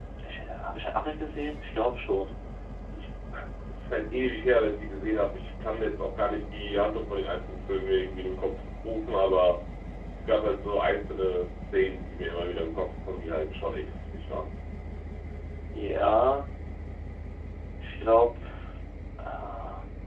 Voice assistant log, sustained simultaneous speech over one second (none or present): none